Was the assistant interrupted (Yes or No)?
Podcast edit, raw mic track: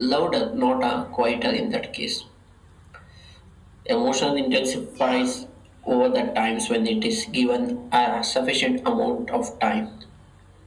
Yes